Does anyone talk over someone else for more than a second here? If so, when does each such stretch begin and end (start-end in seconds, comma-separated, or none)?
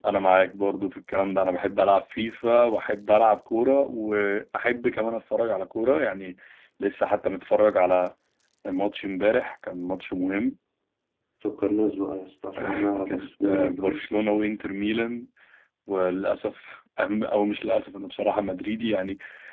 12.6-14.0